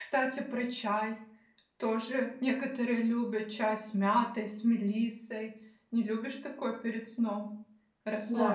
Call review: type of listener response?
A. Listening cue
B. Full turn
B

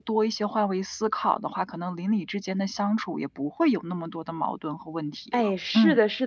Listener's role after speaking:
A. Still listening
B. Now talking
B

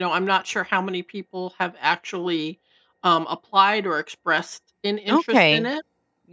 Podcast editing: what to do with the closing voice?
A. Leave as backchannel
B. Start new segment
B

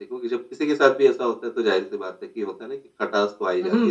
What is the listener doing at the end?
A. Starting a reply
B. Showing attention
A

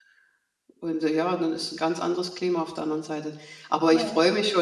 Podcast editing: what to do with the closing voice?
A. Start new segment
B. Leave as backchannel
B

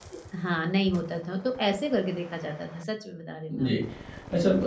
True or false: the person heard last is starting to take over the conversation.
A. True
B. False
A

